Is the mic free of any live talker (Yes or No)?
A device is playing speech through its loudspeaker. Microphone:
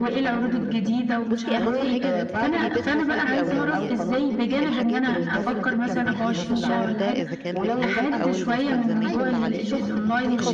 No